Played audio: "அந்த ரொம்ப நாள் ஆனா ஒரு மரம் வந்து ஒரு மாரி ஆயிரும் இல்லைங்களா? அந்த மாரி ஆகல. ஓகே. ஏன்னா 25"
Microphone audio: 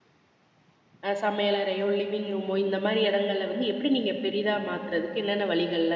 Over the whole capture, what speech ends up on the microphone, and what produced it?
user only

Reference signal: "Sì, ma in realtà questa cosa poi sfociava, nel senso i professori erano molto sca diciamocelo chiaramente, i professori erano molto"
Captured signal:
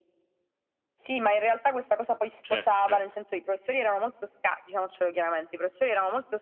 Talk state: both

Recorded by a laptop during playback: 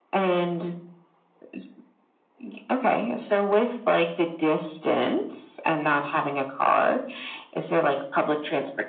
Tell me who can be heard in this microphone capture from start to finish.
echo only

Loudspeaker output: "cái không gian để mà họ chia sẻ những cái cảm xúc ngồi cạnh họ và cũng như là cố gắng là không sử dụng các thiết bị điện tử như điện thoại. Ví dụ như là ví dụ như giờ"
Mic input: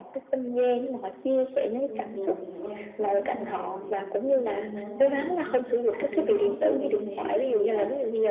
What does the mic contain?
both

